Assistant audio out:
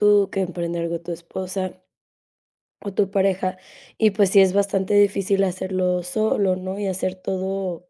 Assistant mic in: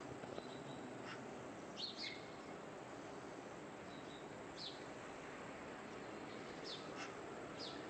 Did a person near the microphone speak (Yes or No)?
No